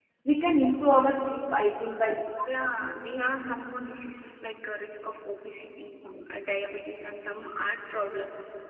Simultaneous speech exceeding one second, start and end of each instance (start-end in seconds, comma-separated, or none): none